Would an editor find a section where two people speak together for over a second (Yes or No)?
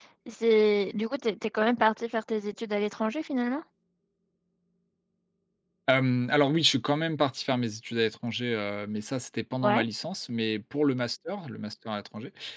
No